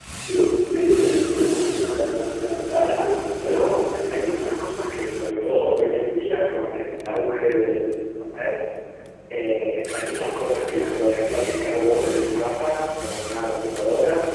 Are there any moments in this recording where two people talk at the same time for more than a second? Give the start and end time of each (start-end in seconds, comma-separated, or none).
2.8-4.2